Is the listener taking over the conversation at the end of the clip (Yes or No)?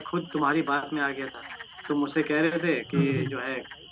No